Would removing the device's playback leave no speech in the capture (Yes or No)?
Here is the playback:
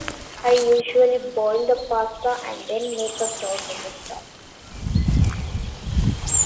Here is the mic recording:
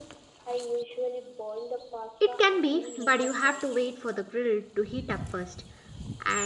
No